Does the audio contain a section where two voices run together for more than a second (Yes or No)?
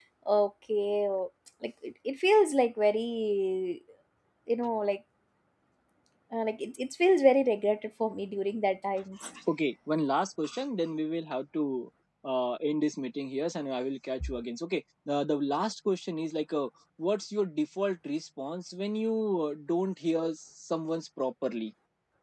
No